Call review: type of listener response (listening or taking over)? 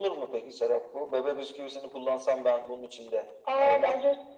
taking over